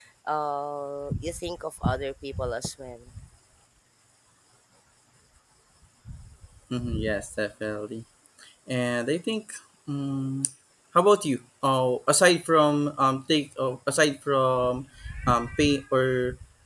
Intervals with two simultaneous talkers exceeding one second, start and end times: none

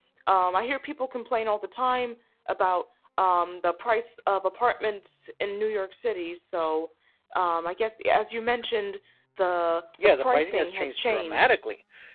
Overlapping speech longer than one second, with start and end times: 10.0-11.6

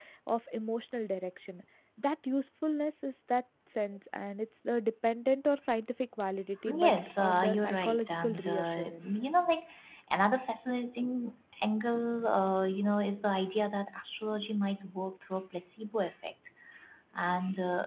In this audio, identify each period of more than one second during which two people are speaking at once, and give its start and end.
6.7-9.1

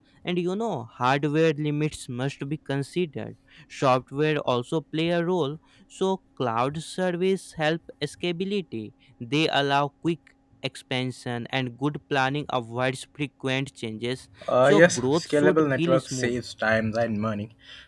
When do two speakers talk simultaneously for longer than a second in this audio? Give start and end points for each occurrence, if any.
14.6-16.4

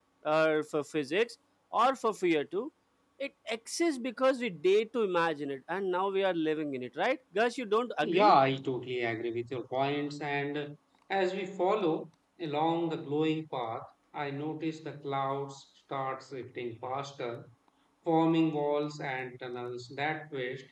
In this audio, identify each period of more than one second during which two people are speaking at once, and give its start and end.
none

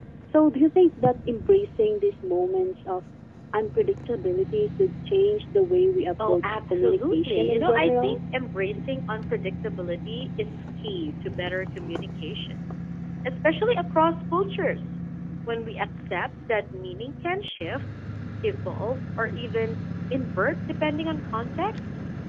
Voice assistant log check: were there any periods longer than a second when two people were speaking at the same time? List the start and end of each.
6.3-8.2

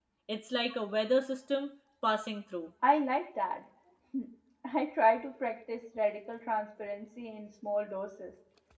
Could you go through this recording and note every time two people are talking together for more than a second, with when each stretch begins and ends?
none

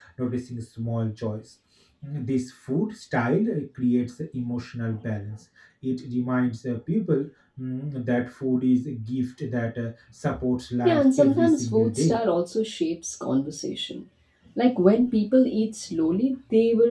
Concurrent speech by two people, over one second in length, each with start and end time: 10.8-12.2

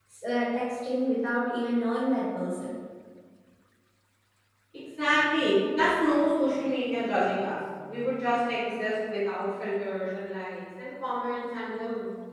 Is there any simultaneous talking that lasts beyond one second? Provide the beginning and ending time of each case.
none

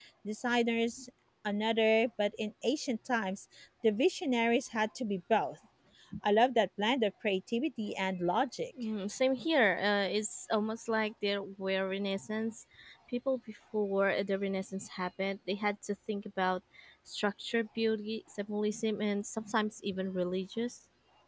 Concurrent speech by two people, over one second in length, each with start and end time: none

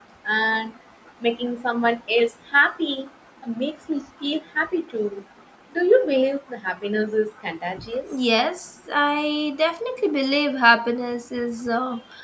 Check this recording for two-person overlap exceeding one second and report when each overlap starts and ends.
none

